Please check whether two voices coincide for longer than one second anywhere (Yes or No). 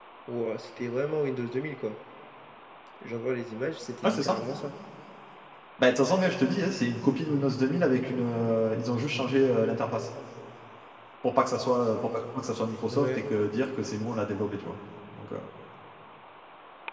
No